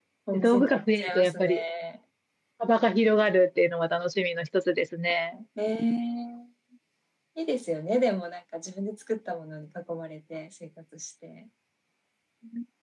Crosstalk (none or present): present